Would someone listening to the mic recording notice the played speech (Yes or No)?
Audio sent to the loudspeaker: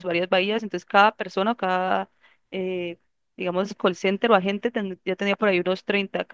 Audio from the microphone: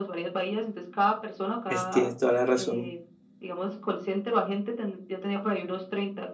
Yes